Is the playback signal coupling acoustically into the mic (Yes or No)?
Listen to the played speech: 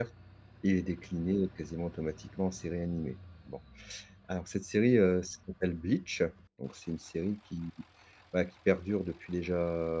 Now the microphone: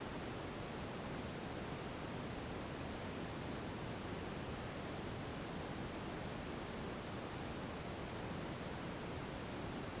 No